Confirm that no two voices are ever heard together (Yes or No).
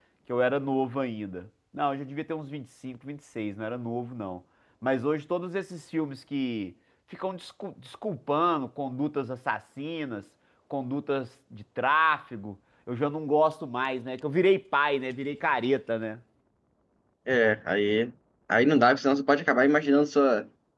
Yes